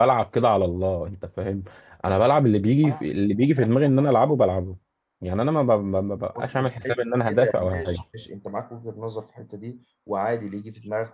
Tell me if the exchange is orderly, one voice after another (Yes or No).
No